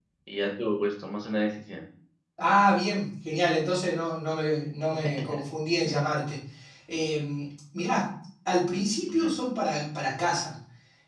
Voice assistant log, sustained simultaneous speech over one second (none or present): none